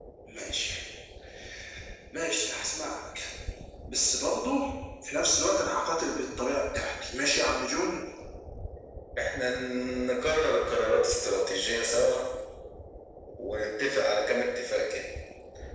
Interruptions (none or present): none